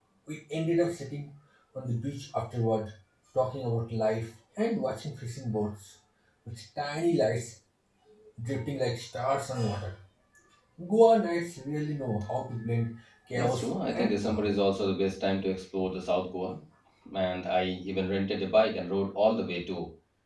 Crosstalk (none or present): present